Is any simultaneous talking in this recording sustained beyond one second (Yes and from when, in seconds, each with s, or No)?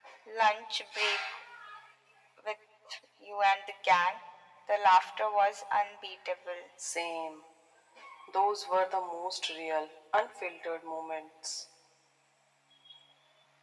No